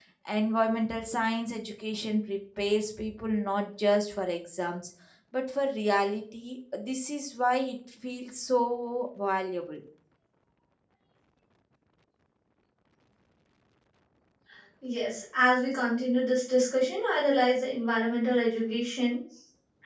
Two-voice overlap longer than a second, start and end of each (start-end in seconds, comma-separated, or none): none